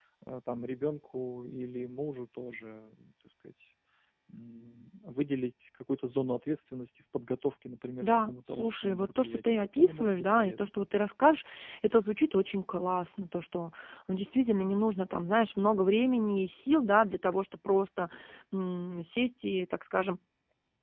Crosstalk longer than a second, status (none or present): present